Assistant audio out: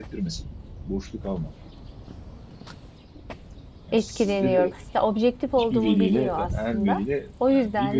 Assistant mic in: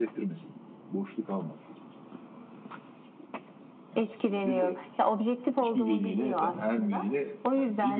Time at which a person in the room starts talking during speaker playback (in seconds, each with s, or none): none